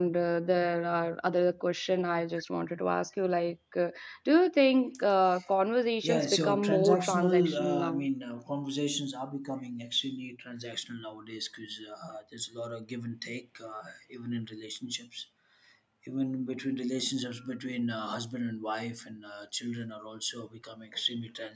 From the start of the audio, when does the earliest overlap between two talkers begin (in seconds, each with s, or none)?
6.0 s